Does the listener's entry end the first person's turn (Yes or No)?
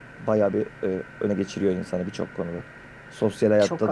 No